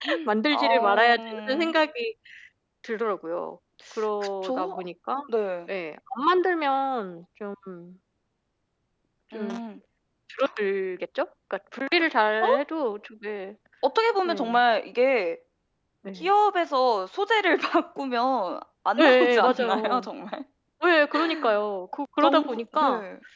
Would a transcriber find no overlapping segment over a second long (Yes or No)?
No